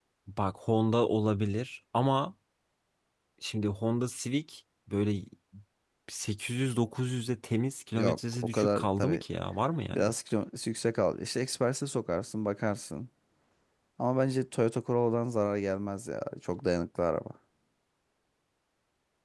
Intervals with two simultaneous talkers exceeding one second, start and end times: 8.0-9.2

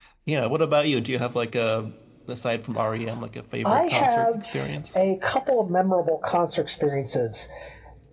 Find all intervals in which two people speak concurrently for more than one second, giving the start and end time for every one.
3.6-5.0

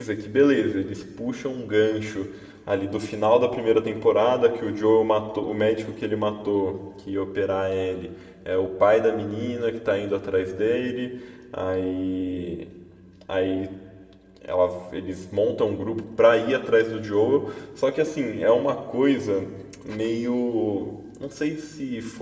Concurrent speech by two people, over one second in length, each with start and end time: none

